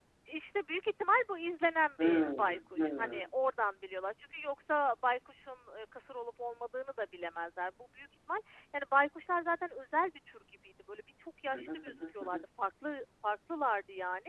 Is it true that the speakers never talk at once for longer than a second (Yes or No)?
No